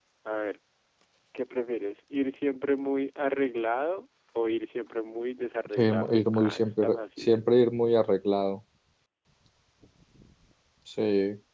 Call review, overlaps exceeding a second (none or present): present